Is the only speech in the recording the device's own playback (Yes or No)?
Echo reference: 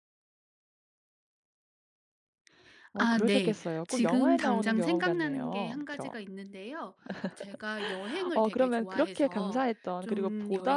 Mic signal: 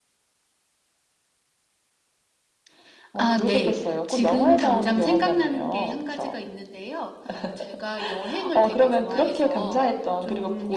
Yes